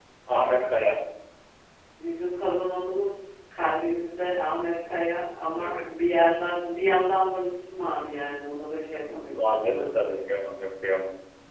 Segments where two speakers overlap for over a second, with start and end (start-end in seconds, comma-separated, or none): 8.9-10.2